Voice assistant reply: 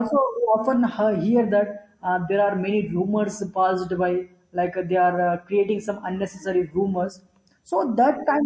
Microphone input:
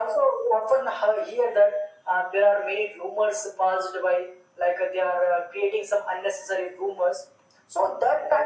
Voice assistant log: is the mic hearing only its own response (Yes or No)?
Yes